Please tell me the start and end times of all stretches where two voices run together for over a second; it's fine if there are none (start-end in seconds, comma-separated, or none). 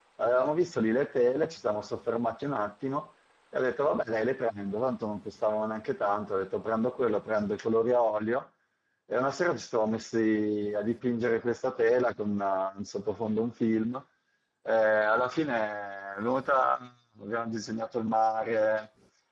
none